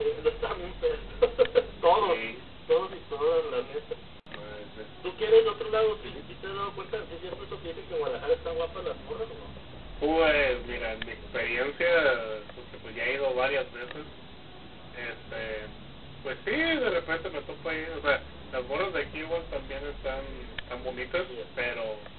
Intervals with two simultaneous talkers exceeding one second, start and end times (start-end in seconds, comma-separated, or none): none